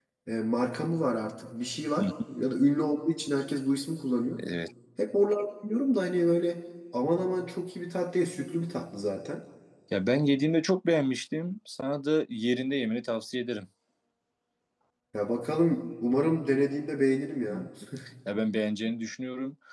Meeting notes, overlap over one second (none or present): none